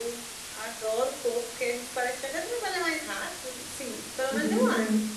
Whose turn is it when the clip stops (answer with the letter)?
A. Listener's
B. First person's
A